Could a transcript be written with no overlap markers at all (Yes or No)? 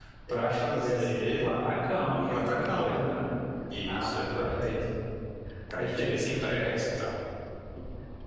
No